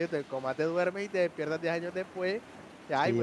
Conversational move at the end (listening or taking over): taking over